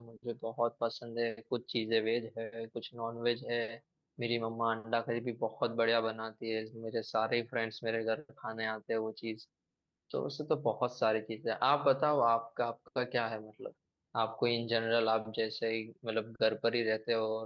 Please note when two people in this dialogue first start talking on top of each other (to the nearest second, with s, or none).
none